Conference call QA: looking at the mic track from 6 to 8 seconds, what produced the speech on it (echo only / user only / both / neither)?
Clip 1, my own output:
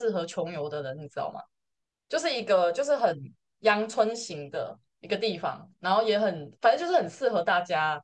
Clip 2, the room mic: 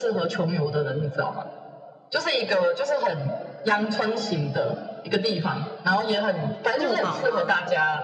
both